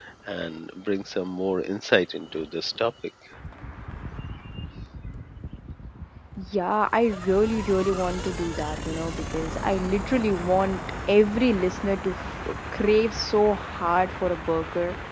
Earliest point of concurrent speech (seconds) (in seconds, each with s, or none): none